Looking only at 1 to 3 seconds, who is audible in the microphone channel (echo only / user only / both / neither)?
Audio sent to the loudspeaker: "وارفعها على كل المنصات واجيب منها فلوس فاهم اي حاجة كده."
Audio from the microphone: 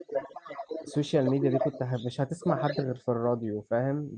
both